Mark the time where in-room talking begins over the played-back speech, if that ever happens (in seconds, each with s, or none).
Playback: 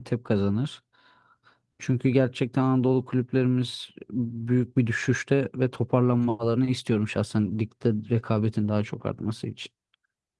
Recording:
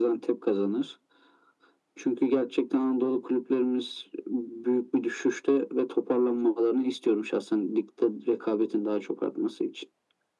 none